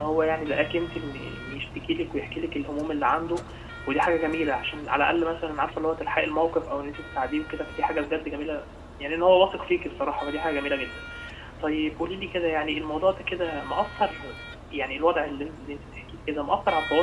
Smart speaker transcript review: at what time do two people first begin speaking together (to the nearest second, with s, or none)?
none